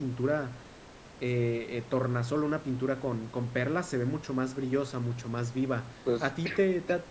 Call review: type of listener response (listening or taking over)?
listening